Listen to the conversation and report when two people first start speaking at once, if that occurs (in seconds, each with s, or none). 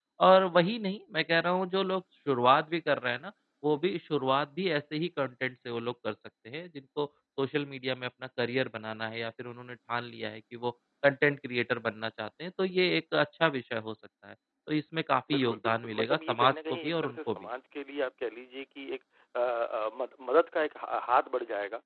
15.3 s